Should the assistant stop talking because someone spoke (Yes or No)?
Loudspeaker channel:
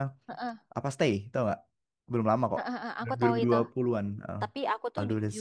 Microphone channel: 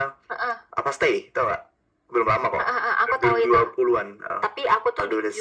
No